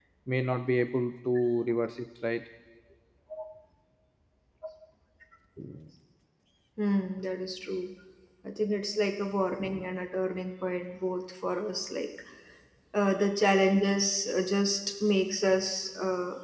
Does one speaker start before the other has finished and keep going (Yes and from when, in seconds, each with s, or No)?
No